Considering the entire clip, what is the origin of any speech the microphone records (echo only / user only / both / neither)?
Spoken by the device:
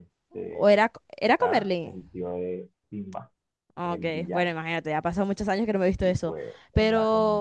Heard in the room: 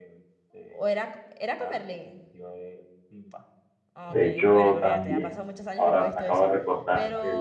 both